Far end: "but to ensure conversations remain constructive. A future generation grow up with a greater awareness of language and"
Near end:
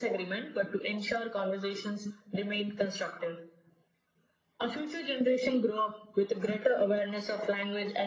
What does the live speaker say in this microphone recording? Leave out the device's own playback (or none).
none